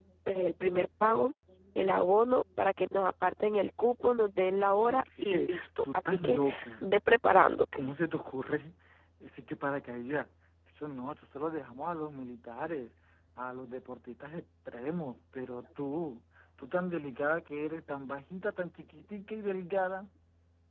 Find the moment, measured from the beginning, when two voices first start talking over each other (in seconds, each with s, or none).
4.8 s